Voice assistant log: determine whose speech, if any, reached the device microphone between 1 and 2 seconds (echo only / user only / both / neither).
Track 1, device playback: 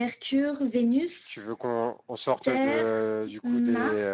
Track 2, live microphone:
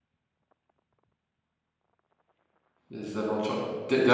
neither